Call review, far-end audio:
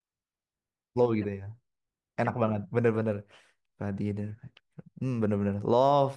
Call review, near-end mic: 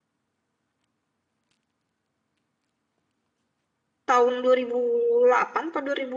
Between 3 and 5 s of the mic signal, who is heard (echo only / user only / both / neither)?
user only